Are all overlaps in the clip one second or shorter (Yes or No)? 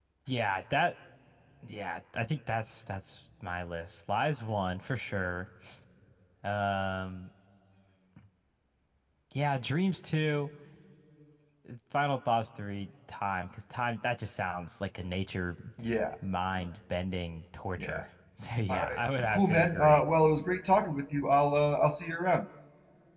No